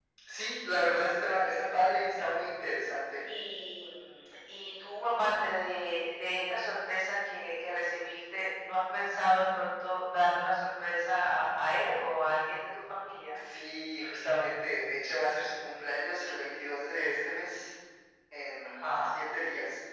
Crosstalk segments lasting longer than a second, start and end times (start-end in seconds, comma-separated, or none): none